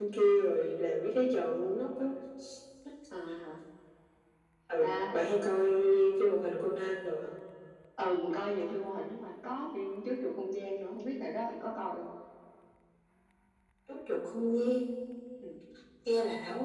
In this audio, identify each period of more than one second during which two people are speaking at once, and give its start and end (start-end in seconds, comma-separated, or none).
none